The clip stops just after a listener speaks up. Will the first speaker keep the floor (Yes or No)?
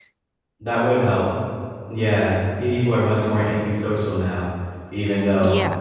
No